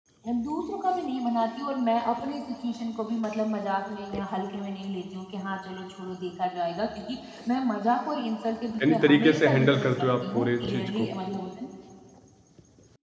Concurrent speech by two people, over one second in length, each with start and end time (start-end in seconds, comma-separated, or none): 8.8-11.1